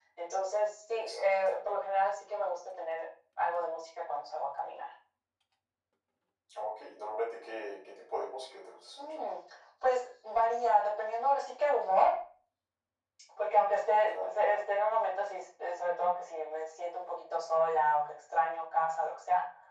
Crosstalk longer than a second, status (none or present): none